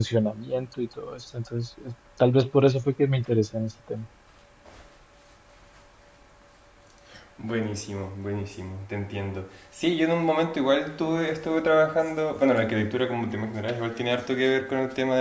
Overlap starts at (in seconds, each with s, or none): none